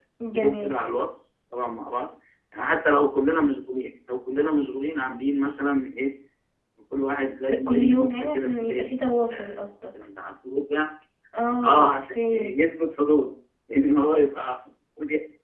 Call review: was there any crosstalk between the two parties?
Yes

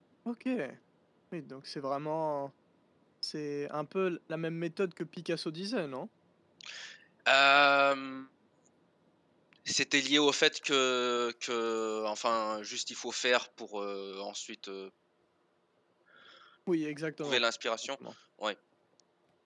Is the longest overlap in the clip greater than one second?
No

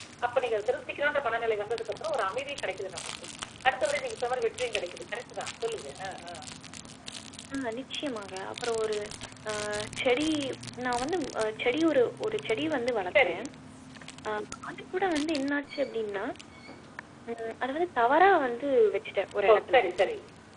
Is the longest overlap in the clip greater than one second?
No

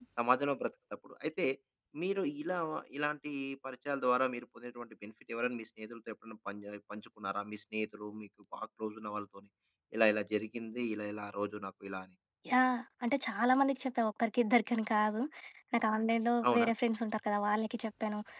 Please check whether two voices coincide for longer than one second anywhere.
No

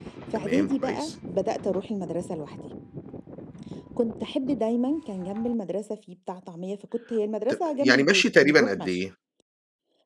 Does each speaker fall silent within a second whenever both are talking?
No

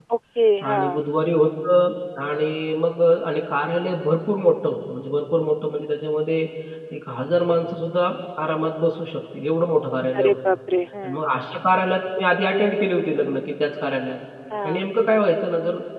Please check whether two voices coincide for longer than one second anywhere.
No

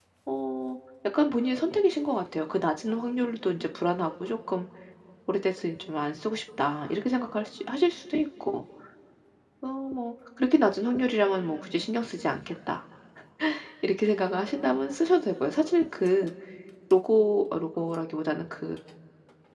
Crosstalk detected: No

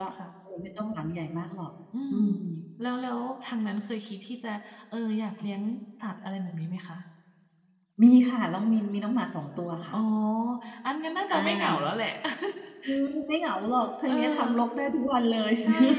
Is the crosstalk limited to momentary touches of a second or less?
Yes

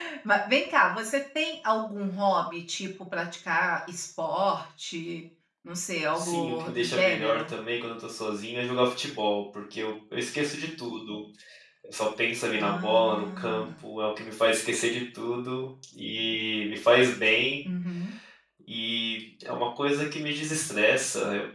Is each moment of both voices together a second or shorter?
No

